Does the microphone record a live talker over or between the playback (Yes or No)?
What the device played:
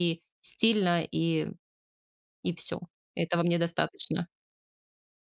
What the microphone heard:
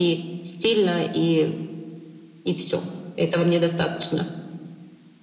No